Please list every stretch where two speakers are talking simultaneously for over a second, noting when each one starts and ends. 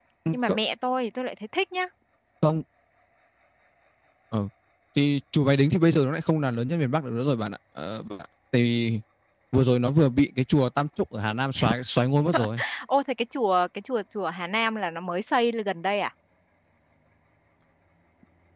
none

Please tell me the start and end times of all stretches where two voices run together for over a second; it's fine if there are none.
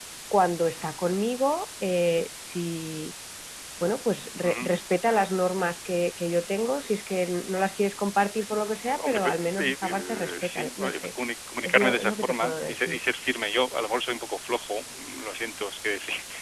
8.9-11.1, 11.6-13.0

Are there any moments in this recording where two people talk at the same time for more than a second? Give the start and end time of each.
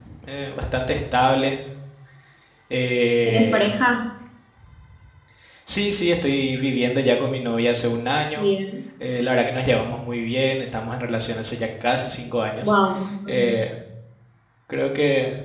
none

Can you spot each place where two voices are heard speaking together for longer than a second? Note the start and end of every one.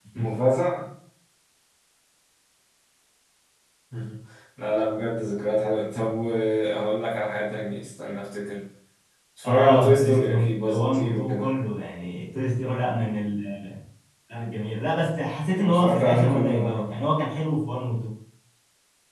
9.4-11.5, 15.5-16.8

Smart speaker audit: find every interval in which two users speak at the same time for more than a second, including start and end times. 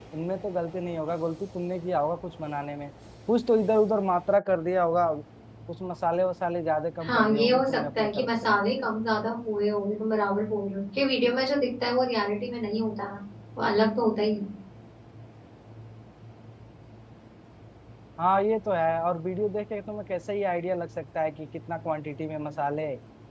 7.0-8.5

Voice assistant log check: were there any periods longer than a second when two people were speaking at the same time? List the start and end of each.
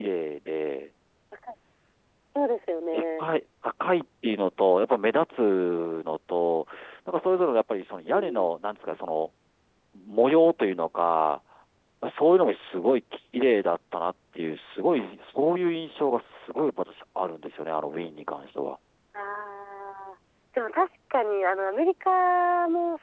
none

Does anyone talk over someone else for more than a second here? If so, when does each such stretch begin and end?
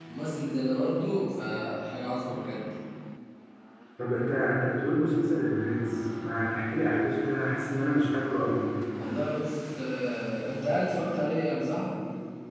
none

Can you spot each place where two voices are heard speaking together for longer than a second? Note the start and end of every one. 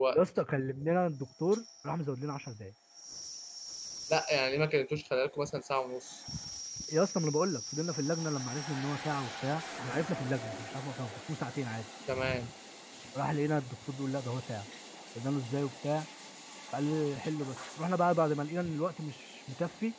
none

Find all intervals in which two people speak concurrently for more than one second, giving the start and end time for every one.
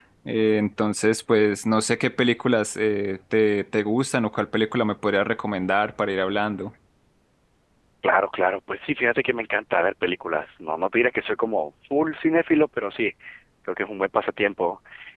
none

